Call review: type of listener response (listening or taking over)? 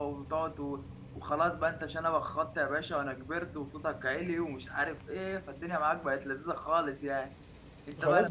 taking over